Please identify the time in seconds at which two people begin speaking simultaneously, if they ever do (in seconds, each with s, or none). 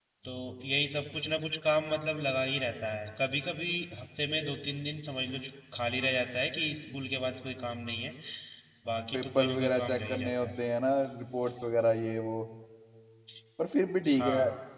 9.1 s